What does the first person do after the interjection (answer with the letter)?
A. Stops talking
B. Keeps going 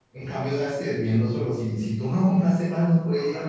A